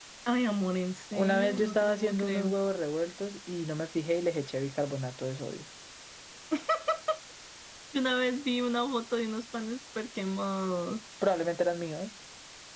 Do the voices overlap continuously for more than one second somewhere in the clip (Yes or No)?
Yes